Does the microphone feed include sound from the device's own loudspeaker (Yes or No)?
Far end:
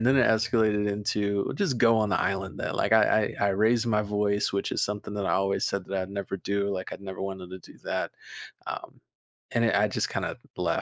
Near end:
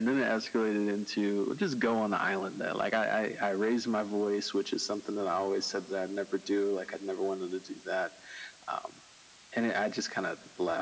Yes